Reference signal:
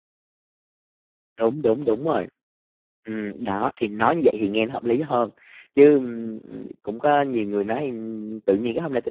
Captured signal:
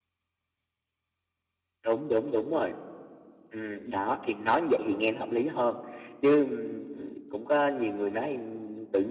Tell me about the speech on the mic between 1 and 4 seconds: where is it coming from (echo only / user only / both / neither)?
echo only